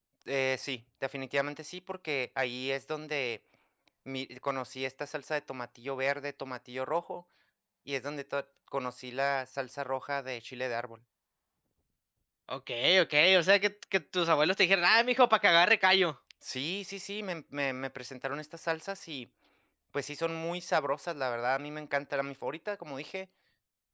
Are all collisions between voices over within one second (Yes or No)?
Yes